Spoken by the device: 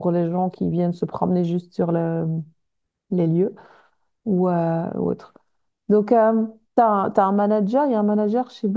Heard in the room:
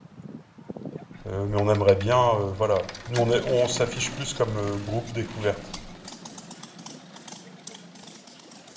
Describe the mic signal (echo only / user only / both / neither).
user only